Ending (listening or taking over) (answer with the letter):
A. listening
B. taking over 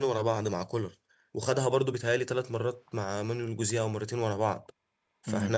A